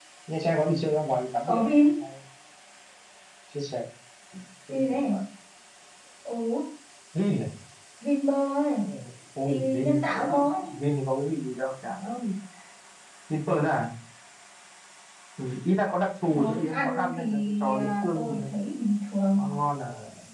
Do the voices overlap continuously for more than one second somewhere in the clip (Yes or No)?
Yes